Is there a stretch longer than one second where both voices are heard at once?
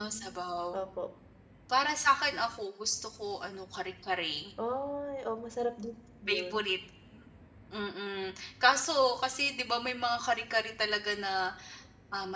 No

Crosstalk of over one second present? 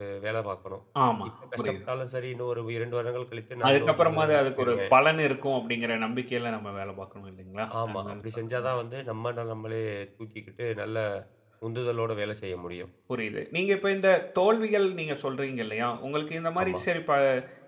Yes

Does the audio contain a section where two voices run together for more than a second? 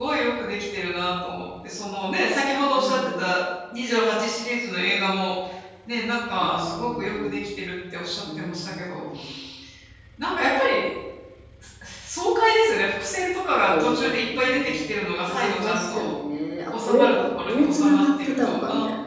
Yes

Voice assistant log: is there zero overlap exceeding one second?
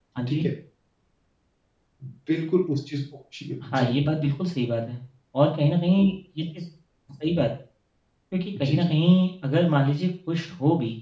Yes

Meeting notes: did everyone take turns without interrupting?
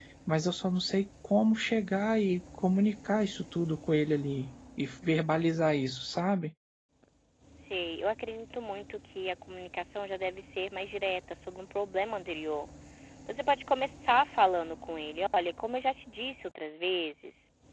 Yes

